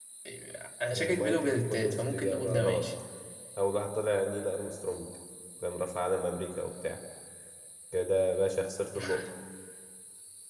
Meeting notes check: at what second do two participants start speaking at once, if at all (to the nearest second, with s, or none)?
1 s